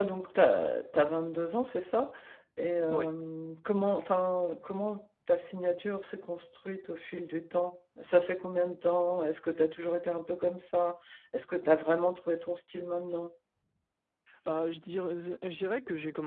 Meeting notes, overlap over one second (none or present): none